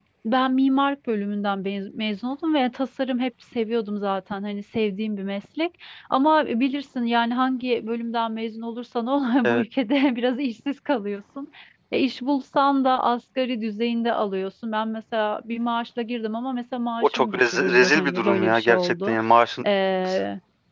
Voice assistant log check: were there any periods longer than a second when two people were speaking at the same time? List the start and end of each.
17.0-19.1

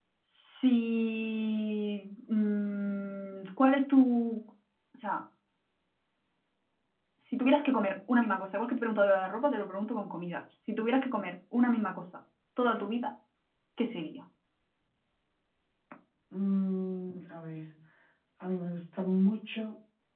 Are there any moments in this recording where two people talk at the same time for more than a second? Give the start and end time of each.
none

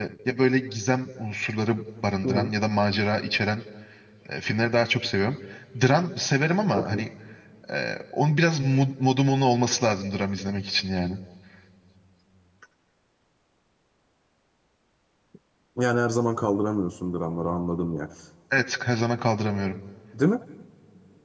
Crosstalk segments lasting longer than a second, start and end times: none

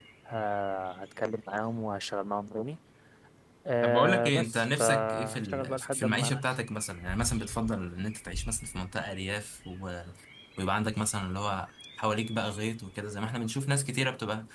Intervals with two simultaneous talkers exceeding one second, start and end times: 3.8-6.4

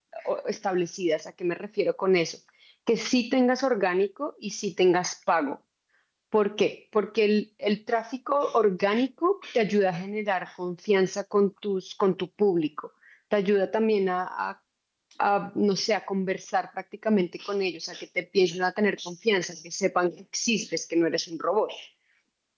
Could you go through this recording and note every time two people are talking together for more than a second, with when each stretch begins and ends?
none

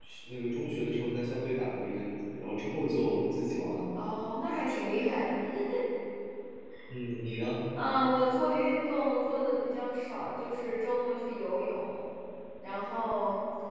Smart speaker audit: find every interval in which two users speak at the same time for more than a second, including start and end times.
none

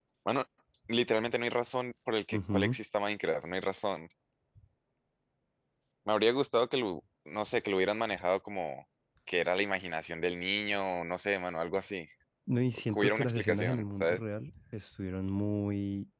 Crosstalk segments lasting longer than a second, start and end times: 12.9-14.2

